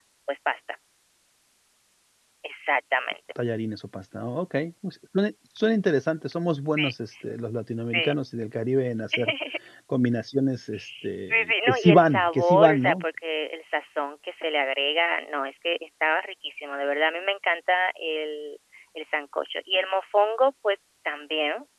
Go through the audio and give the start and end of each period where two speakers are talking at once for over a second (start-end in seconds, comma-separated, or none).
11.5-13.0